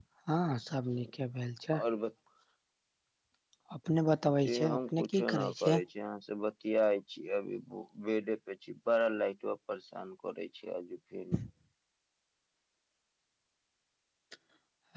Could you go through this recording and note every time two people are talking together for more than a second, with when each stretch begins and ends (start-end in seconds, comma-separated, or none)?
4.5-5.8